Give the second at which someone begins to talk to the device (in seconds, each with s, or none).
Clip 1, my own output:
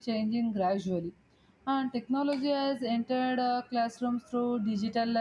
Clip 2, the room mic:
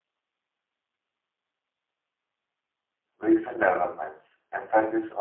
3.2 s